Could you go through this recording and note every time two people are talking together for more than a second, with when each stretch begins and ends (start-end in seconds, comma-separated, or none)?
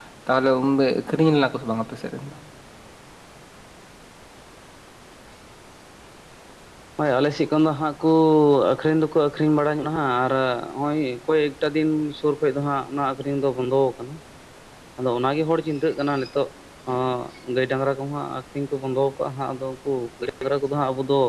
none